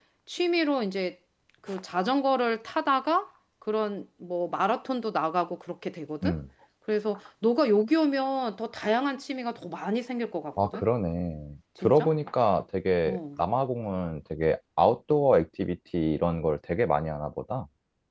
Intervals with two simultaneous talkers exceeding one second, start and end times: none

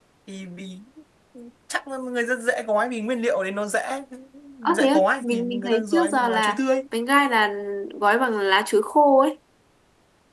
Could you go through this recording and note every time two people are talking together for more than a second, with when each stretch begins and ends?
4.7-6.6

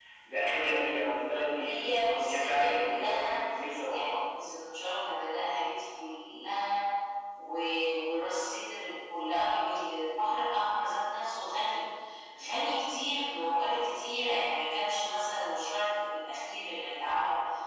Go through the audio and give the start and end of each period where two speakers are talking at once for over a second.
1.6-3.4

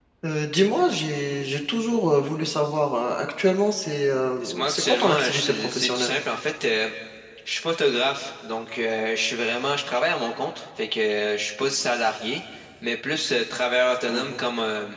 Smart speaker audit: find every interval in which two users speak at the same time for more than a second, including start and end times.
4.4-6.1

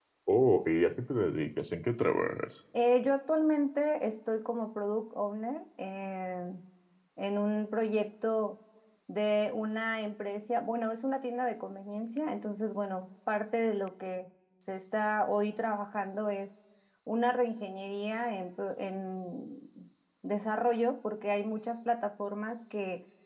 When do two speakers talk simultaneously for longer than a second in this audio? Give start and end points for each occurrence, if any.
none

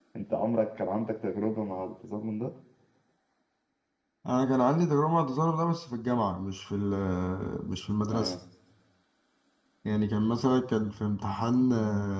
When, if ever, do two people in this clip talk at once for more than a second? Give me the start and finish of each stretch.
none

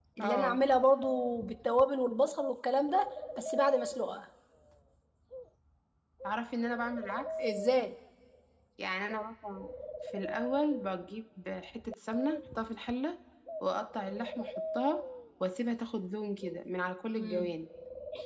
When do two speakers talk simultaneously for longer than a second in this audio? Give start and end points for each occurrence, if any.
none

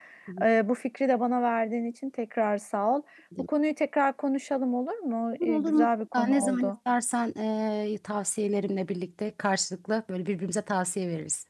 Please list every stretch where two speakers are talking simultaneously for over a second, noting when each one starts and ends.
5.4-6.7

